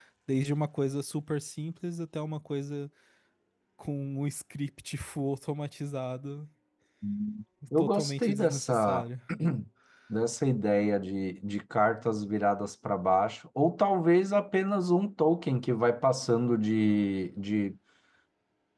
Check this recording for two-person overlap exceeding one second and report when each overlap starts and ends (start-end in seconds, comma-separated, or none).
7.8-9.0